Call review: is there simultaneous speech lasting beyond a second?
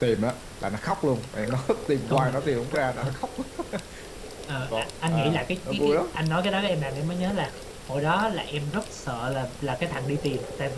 Yes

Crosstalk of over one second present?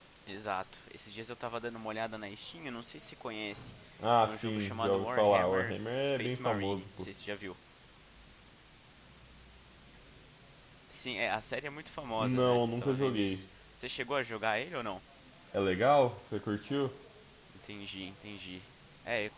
Yes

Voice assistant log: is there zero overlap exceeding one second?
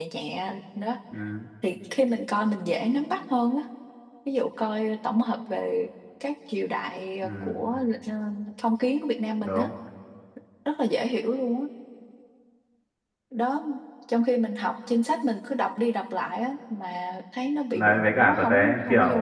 No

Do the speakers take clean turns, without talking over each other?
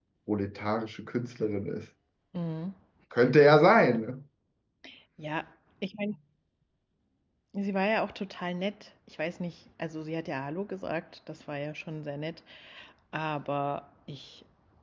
Yes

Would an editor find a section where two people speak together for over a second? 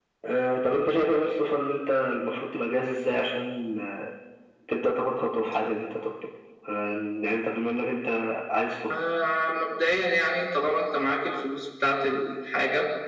No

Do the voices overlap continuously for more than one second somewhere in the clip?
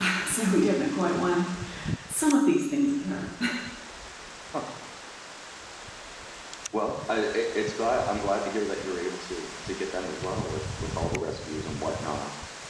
No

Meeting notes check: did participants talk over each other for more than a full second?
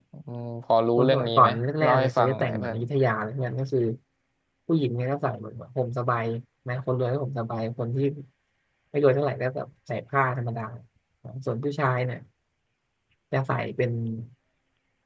Yes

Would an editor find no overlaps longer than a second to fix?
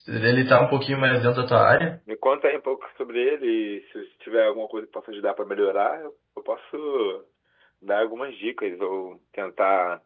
Yes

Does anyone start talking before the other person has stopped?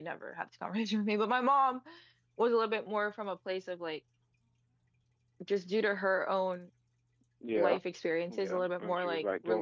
Yes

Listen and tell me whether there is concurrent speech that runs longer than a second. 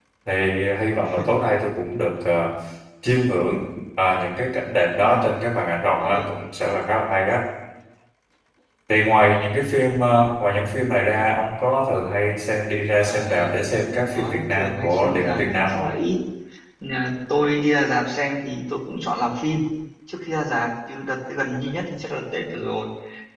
Yes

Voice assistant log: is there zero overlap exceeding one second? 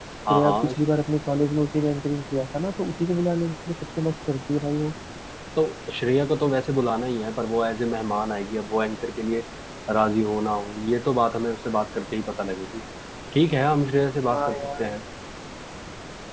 Yes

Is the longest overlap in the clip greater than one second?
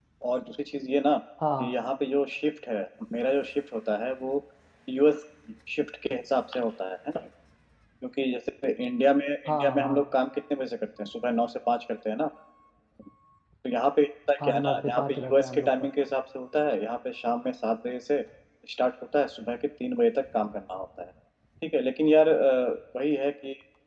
Yes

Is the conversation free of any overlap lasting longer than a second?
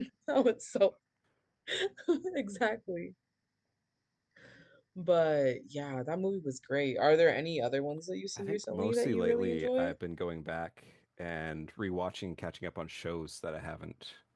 No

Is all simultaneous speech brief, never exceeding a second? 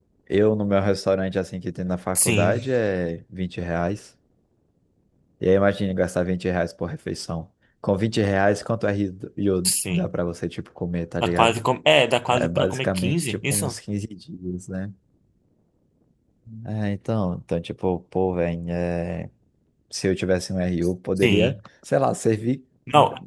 No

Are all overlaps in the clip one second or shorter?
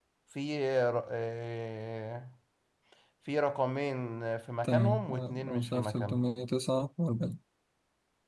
No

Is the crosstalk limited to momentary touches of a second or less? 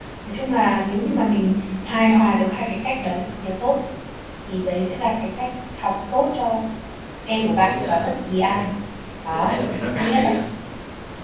No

